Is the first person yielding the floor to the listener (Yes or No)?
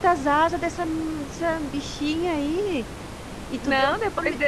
Yes